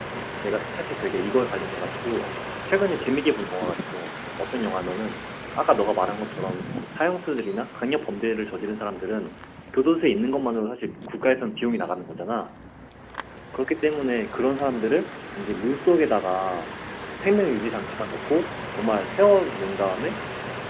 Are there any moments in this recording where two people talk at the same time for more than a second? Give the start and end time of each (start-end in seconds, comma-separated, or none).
none